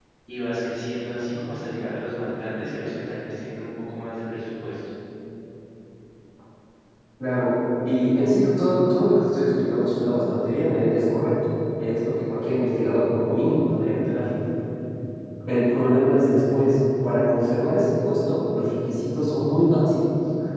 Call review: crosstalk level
none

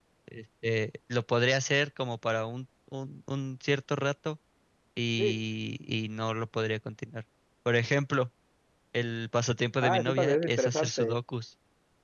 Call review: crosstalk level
present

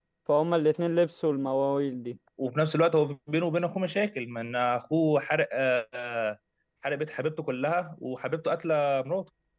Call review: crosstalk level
none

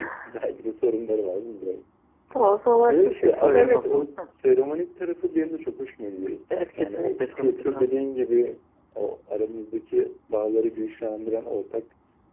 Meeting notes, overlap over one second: present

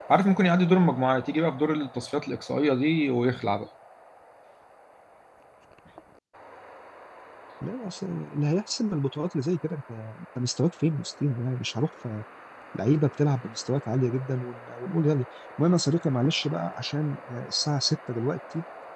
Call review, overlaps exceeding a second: none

